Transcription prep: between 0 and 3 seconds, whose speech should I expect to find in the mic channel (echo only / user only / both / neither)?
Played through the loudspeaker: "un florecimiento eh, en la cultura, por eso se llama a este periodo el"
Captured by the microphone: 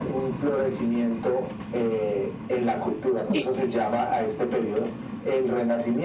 echo only